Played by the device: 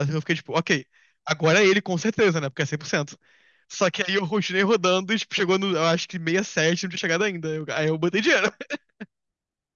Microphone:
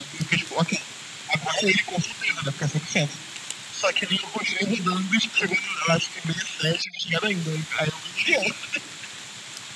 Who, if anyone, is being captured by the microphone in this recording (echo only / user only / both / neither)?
echo only